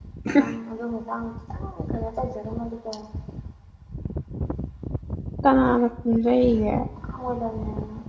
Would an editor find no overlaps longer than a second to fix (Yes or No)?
Yes